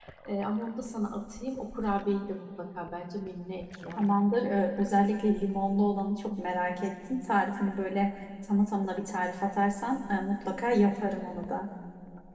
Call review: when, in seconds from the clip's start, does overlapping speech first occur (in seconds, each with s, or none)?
none